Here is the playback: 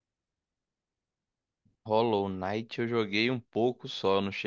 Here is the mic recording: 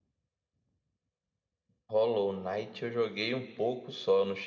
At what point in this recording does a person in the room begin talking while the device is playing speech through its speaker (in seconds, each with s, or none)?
none